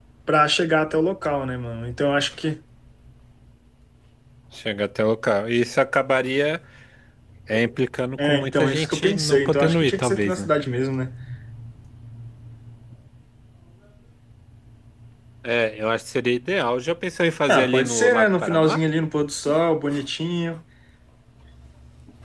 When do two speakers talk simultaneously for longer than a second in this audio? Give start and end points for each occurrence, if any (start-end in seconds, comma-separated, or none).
8.2-10.5, 17.5-18.8